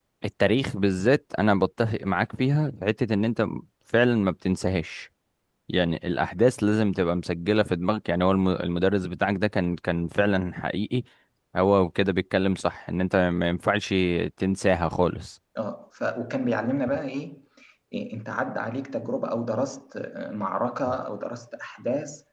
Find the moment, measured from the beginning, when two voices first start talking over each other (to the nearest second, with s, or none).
none